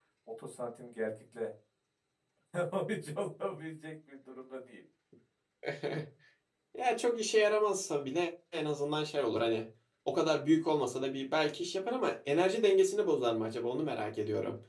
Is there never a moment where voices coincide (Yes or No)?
Yes